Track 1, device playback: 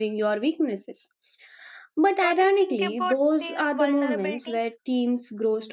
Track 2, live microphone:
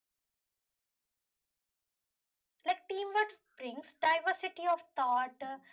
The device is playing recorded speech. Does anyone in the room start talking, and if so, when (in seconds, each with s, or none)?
2.6 s